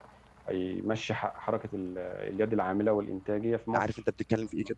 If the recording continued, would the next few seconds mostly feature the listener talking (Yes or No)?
Yes